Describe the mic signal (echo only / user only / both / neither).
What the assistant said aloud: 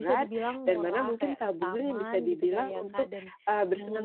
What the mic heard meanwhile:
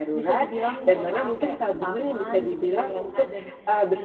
echo only